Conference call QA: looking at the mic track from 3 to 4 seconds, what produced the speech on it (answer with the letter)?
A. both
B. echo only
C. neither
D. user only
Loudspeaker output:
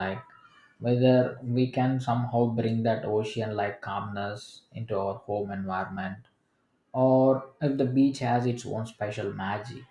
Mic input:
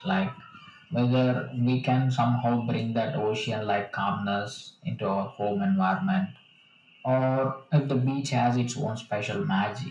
B